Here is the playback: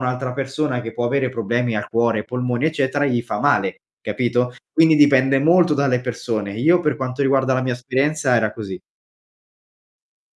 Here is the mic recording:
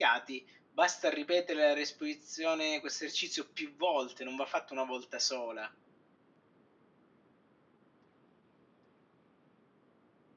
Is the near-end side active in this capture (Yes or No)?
Yes